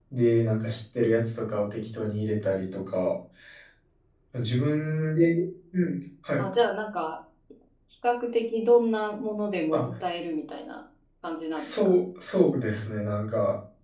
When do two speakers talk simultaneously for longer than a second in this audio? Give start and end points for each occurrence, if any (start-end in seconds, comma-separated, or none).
none